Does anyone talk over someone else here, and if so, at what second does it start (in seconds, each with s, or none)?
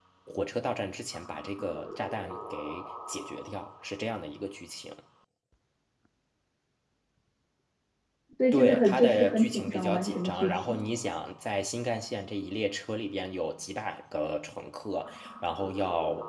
8.5 s